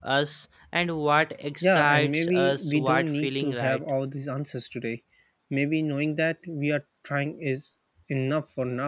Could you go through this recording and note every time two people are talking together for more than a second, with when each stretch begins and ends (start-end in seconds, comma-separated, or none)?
1.6-3.8